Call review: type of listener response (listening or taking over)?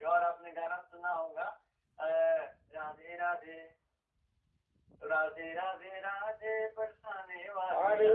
taking over